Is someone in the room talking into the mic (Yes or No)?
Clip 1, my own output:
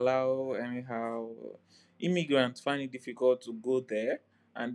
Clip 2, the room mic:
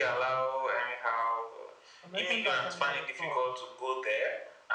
Yes